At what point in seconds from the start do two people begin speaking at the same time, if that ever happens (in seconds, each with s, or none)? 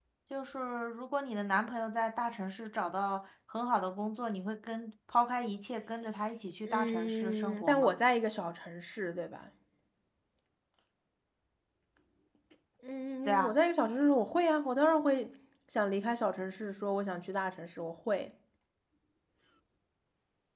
6.6 s